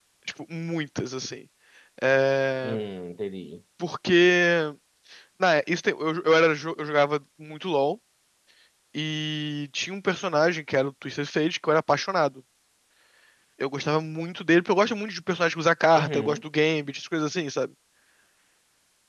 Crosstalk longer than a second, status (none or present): none